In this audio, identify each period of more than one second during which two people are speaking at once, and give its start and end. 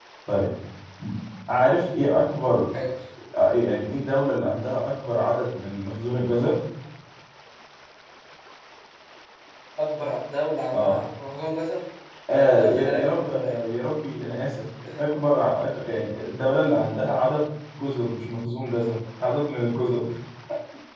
12.3-13.6

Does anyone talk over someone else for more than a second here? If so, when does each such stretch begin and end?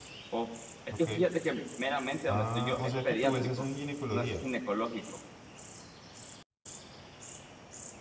2.3-3.6

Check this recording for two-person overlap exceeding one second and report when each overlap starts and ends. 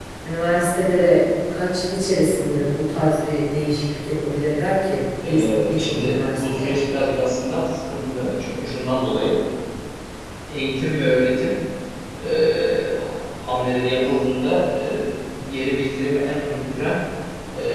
5.2-6.7

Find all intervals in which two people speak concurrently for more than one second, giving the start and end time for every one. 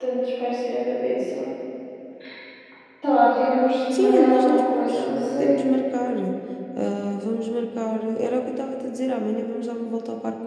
3.9-5.6

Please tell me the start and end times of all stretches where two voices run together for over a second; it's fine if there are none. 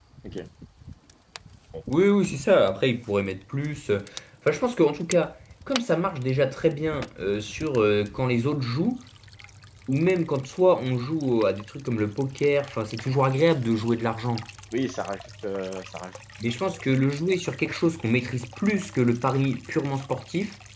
none

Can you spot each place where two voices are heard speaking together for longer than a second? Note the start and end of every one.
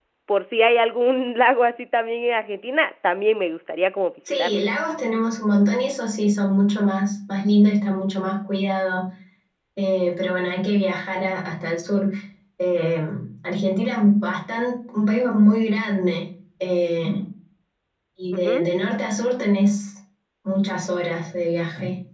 none

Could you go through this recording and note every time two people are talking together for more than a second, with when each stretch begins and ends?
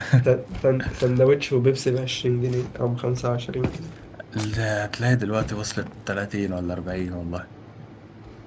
none

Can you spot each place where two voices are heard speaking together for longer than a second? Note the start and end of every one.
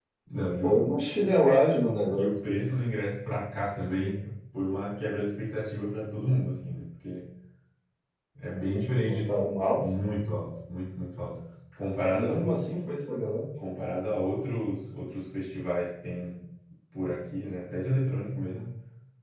none

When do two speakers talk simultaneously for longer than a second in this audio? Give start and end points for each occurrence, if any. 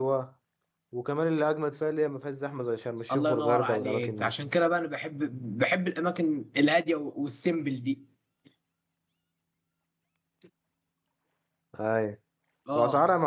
3.1-4.3

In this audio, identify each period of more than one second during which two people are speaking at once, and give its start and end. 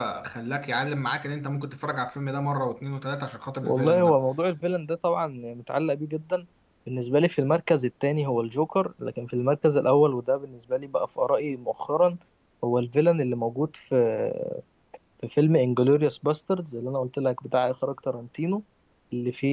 none

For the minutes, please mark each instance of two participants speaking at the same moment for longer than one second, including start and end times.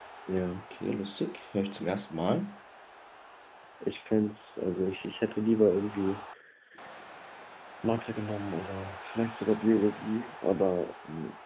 none

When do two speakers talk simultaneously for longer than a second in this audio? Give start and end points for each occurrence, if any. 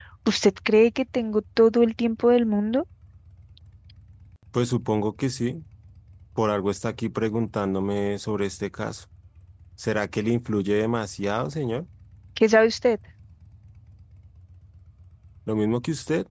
none

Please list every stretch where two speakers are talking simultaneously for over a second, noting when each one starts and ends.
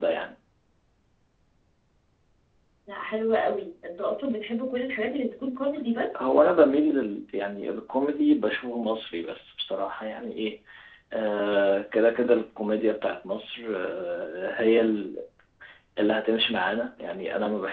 none

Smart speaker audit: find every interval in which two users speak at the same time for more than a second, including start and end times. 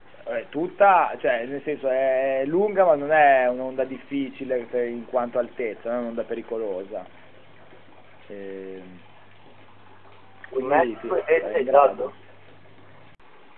10.5-12.1

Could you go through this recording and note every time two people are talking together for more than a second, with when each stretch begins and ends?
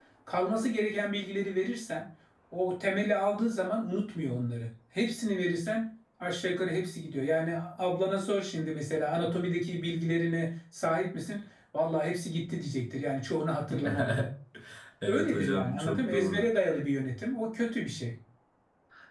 15.1-16.5

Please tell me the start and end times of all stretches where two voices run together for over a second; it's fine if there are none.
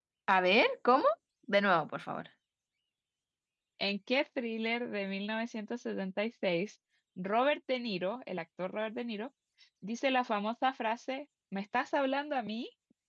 none

